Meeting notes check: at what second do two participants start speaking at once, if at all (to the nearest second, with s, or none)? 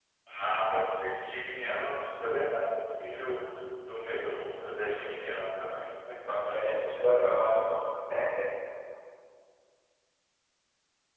none